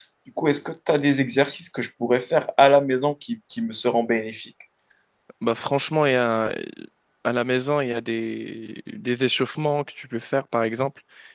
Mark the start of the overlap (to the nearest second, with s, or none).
none